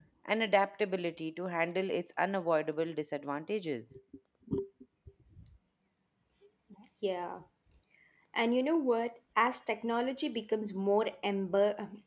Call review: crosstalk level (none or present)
none